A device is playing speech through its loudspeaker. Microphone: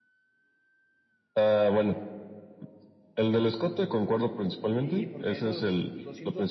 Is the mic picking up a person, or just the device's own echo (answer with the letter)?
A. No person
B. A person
B